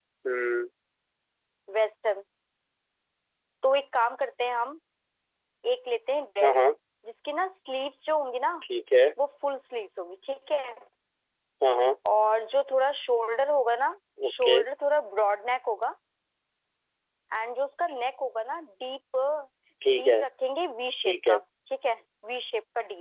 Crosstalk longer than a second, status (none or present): none